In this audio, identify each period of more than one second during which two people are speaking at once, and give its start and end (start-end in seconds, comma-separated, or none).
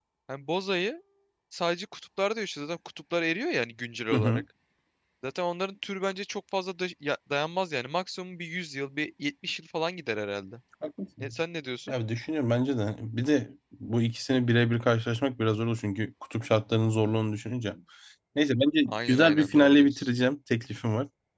18.9-20.1